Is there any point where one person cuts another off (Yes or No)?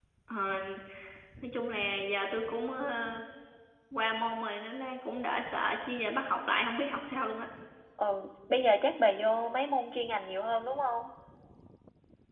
No